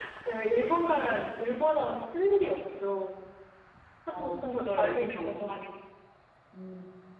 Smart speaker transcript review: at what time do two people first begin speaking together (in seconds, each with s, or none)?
4.1 s